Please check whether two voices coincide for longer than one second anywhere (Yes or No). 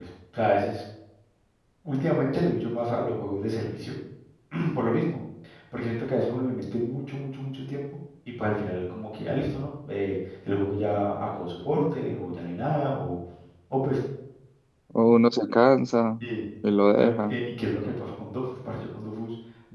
No